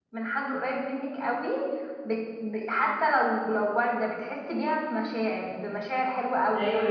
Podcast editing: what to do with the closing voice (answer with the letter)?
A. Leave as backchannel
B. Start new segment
B